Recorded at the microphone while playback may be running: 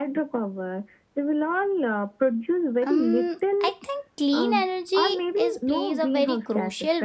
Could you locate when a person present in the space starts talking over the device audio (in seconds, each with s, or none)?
2.9 s